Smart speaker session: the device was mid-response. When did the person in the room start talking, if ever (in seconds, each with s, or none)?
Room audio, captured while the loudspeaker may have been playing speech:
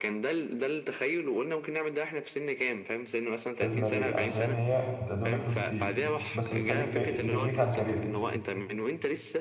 3.5 s